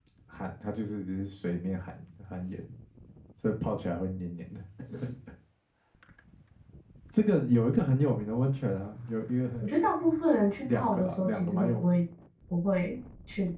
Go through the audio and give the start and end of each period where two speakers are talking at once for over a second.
10.6-12.0

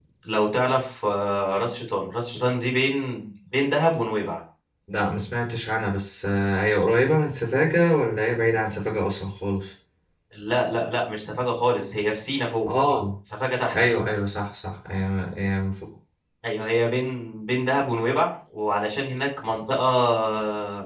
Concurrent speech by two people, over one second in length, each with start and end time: none

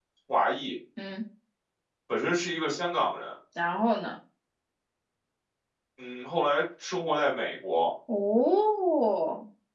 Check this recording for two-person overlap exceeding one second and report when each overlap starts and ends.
none

